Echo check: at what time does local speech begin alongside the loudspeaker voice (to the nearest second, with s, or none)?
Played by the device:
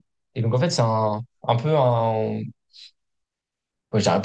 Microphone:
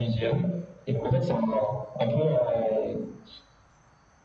none